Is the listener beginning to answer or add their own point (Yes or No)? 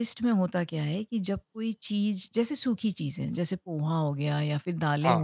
No